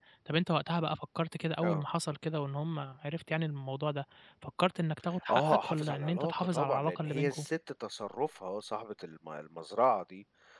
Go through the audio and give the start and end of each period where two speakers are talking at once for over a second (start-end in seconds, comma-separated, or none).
5.3-7.5